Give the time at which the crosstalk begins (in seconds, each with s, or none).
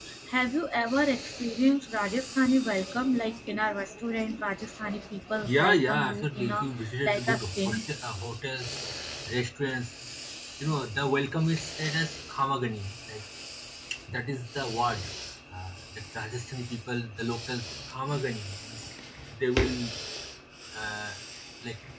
5.4 s